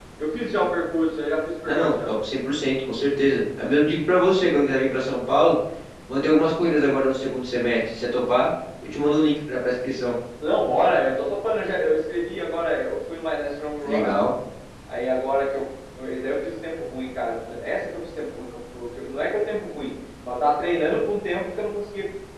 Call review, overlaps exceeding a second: none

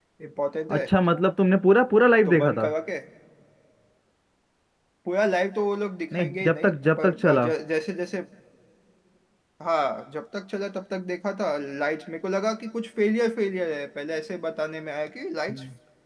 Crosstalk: present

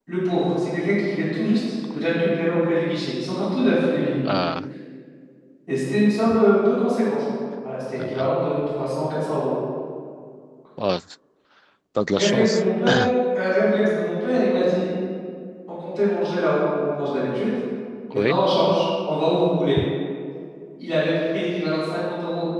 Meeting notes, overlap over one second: none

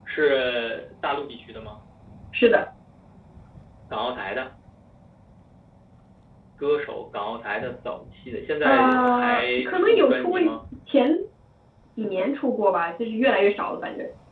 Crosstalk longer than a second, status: present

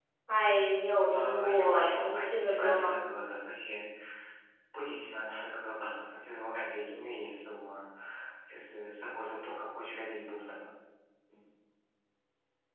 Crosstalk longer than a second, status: present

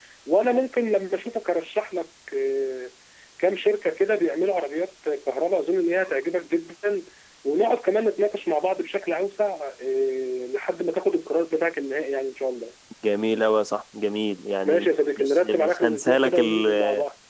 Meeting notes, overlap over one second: present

